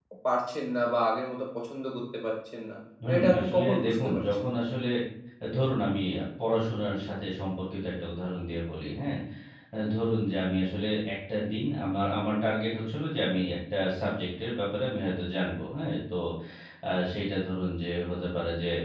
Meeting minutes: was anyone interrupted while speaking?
Yes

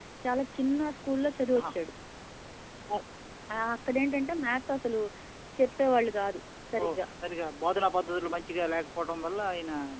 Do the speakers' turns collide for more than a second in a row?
No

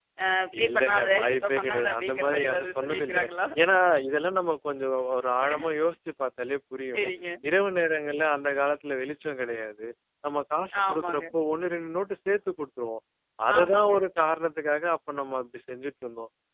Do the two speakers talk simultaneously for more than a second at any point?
Yes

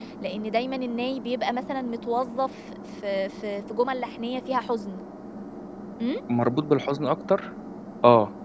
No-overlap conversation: Yes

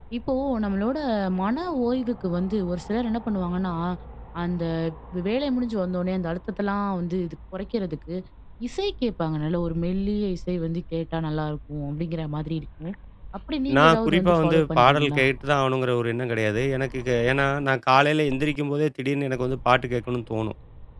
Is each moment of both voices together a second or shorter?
No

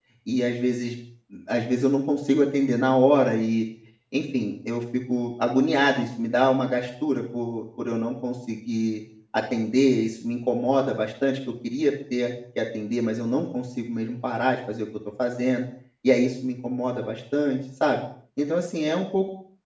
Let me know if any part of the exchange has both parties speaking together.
No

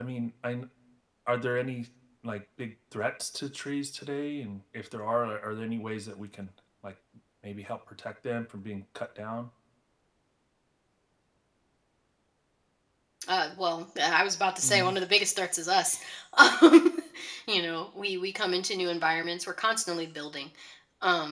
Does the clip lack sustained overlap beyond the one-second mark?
Yes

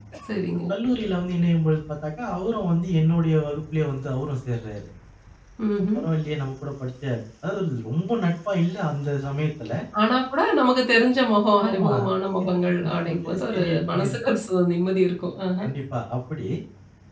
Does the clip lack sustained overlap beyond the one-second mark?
No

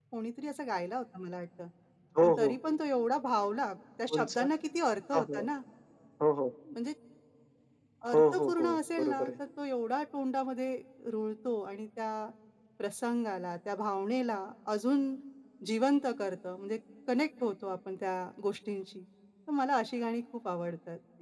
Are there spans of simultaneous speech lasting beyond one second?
Yes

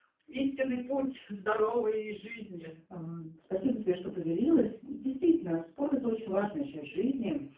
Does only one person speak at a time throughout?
Yes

